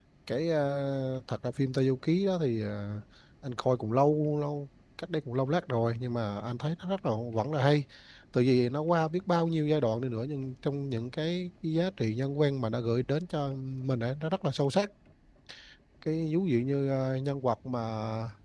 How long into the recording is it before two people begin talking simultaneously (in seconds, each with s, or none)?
none